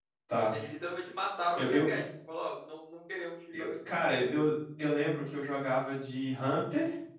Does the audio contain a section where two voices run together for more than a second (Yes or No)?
No